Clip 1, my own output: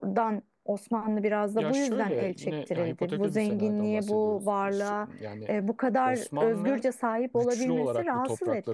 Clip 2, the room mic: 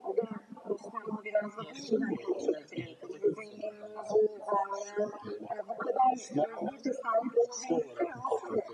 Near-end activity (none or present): none